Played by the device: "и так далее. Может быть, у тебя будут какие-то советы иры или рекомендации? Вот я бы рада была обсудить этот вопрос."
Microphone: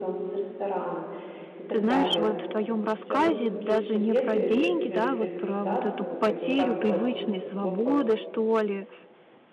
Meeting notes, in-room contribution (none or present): present